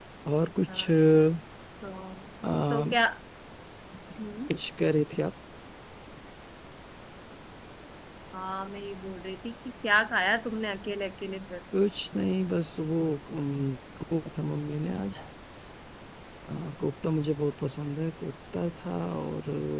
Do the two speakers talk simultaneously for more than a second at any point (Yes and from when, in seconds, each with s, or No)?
No